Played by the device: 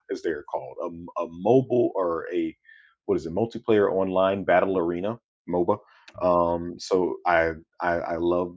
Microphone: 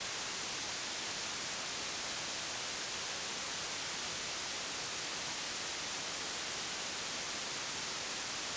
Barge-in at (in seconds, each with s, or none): none